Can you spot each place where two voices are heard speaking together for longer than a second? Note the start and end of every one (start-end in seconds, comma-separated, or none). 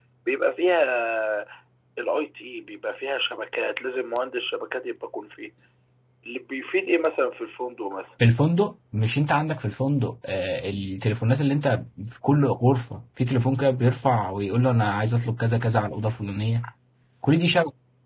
none